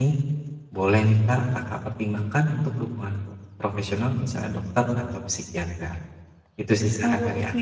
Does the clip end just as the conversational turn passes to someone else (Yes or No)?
Yes